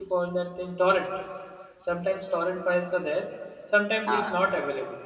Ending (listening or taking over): listening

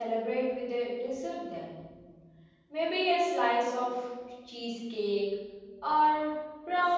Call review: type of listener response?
taking over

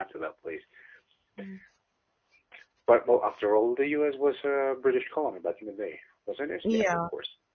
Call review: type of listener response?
taking over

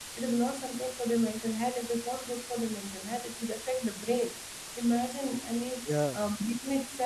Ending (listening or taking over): listening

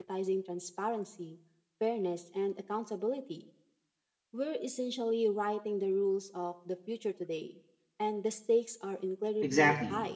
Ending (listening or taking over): taking over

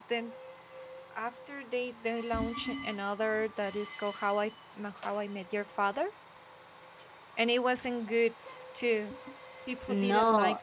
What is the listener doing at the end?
taking over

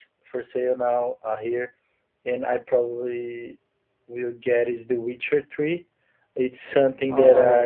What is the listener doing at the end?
listening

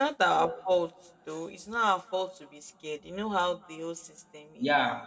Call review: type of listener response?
taking over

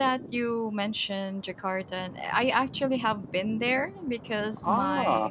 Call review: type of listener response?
listening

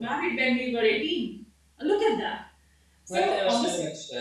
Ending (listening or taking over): taking over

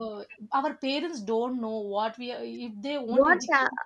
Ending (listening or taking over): taking over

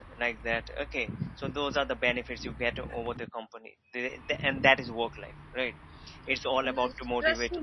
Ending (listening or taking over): taking over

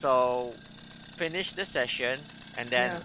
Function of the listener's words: listening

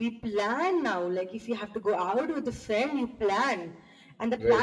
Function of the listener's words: listening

